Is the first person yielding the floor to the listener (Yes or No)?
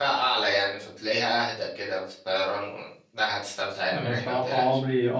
Yes